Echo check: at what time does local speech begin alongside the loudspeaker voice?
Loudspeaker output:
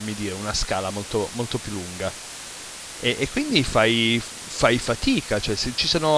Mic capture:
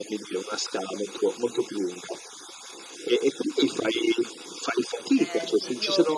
5.1 s

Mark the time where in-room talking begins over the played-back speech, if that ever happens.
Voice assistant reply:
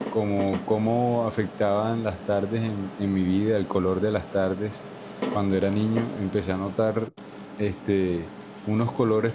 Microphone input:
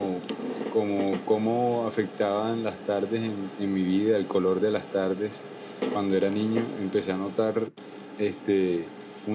none

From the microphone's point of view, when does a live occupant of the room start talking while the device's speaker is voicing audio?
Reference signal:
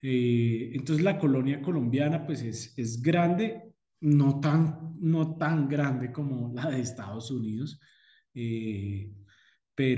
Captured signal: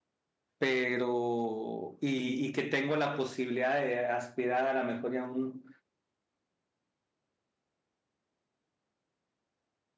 0.6 s

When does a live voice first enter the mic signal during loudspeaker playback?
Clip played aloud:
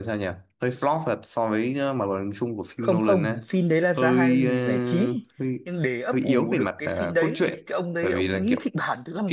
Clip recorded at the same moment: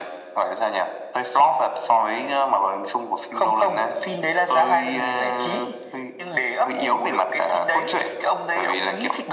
none

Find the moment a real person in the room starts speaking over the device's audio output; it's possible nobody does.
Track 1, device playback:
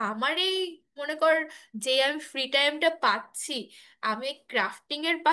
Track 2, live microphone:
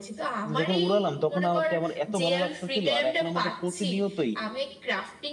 0.4 s

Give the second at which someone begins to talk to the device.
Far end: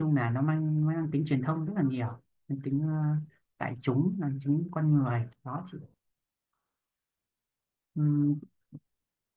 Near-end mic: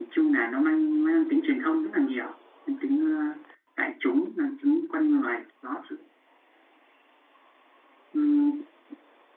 none

